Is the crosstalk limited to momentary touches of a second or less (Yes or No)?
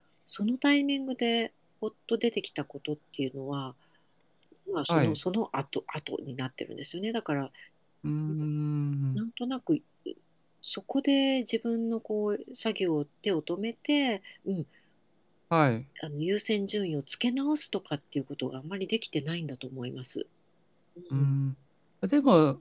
Yes